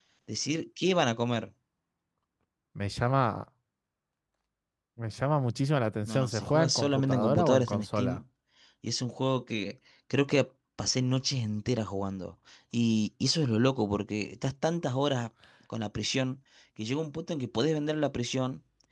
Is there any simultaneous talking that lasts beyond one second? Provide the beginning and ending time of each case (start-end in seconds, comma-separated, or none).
6.1-8.2